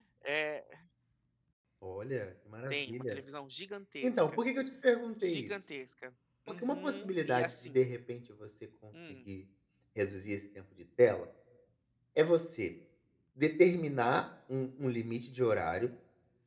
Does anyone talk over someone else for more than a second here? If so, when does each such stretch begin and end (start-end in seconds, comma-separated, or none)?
6.5-7.8